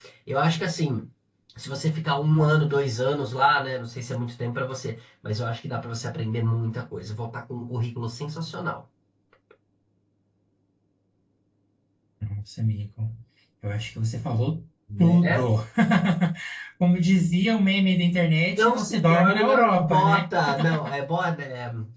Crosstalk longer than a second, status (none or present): present